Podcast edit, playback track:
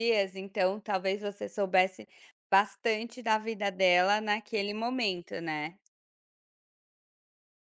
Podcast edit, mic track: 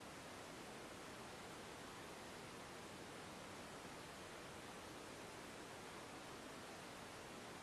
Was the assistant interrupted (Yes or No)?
No